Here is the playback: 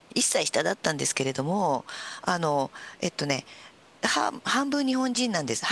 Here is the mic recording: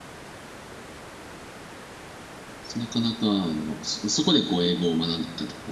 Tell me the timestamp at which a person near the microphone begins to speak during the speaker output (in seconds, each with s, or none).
2.8 s